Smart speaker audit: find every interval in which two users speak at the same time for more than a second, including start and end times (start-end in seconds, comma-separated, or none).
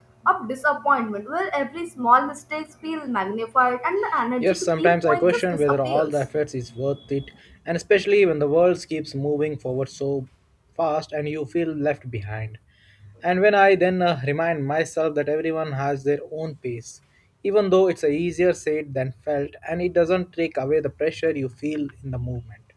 4.4-6.1